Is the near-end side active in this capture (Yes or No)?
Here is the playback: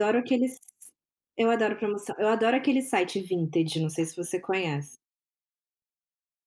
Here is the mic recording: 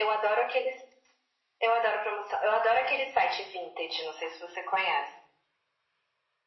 No